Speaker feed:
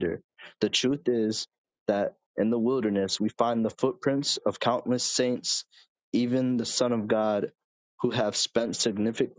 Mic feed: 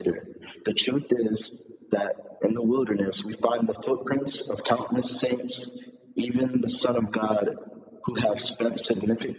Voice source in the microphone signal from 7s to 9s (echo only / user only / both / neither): echo only